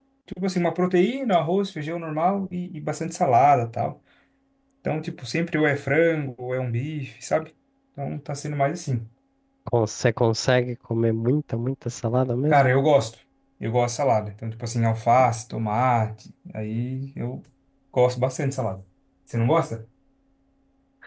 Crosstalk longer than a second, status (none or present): none